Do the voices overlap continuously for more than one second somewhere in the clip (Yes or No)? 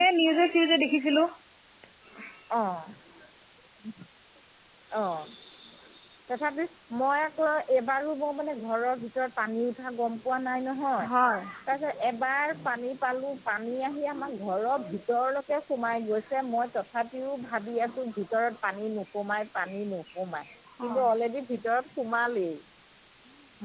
No